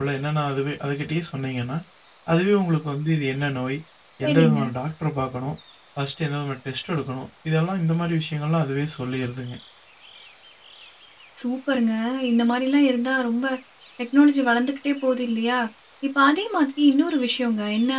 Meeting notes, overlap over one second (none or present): none